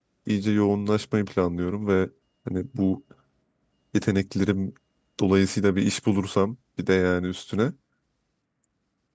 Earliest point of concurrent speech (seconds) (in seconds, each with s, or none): none